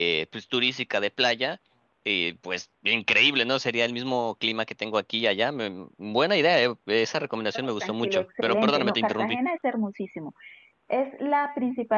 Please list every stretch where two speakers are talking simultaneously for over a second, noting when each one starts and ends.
7.8-9.4

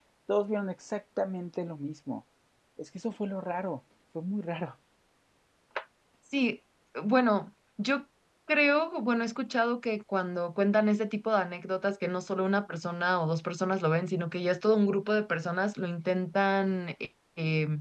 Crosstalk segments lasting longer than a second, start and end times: none

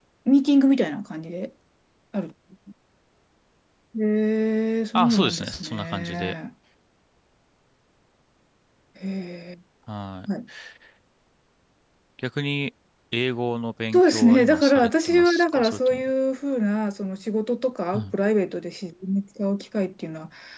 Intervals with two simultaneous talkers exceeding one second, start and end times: 5.0-6.3, 13.9-16.1

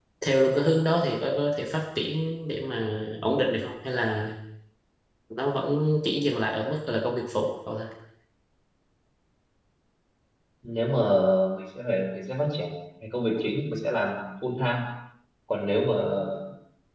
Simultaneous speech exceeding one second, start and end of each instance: none

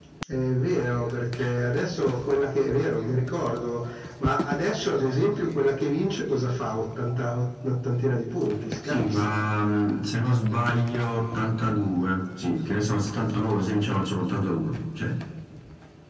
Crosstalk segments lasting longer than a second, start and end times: none

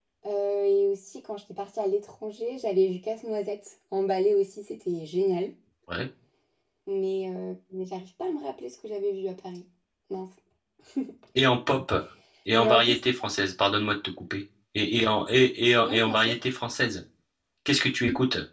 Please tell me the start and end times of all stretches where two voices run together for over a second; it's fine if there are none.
none

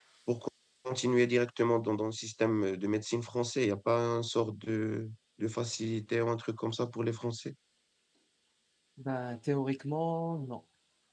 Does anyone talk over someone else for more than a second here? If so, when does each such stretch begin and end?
none

